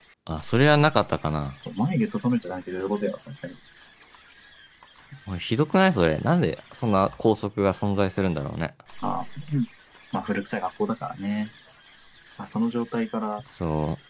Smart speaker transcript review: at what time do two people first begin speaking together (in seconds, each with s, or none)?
none